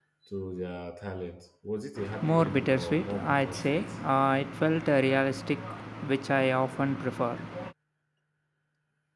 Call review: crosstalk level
present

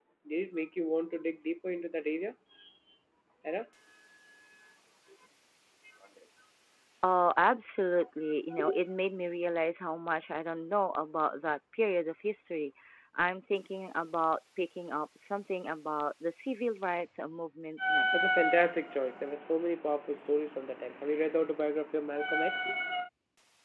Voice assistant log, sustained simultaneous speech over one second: none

